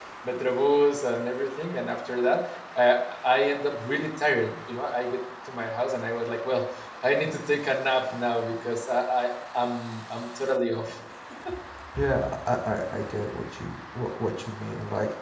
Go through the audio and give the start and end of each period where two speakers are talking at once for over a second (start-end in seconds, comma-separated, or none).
none